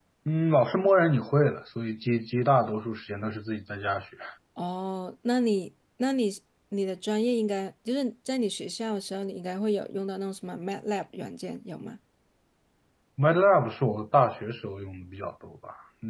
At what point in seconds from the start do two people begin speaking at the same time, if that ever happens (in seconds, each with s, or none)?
none